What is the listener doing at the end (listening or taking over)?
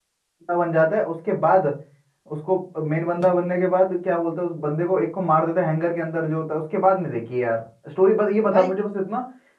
listening